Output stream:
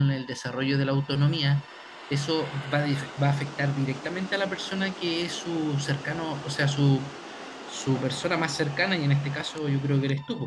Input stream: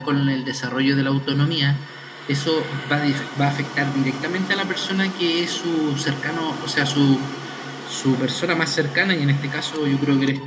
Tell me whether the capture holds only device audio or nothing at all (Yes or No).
Yes